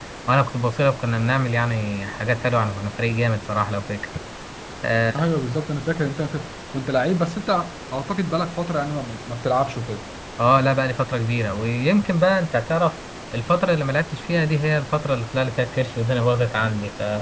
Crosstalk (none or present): none